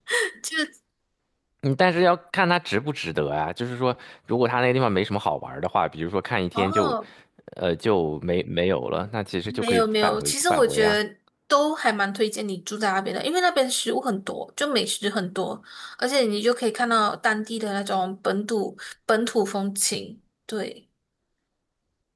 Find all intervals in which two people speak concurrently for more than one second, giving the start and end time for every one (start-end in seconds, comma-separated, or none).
9.5-11.0